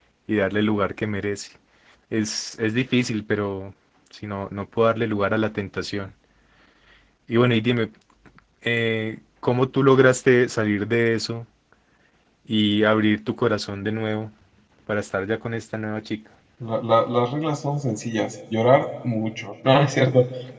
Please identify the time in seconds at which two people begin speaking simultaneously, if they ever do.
none

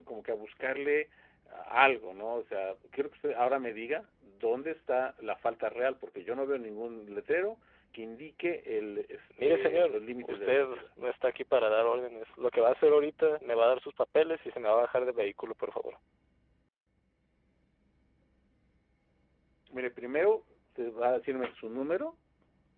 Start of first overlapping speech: 9.4 s

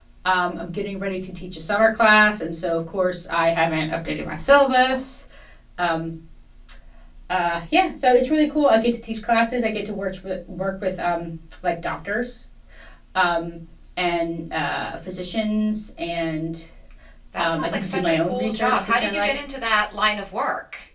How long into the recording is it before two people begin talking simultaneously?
17.4 s

